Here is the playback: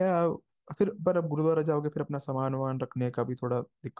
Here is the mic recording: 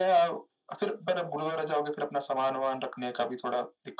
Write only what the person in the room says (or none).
none